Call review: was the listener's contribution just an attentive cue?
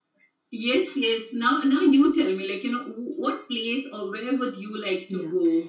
No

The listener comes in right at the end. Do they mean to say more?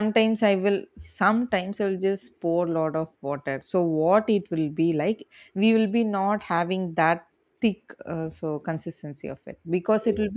No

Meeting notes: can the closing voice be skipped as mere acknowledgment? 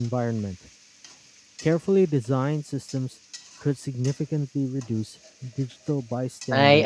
No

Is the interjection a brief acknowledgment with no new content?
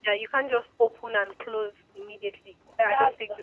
No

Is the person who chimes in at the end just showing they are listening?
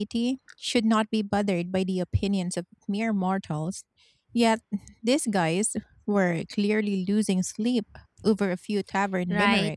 No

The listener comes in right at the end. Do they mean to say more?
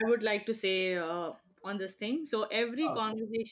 No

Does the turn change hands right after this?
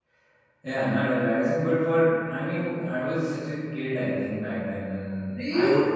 Yes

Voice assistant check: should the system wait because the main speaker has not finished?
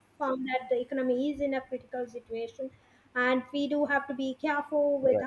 Yes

